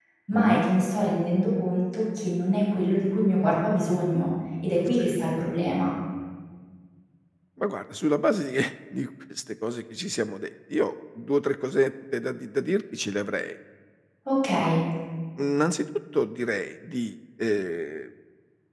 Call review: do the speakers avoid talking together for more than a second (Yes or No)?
Yes